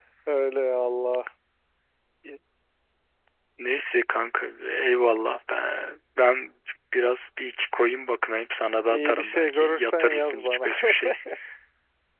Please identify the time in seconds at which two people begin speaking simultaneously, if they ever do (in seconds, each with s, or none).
8.8 s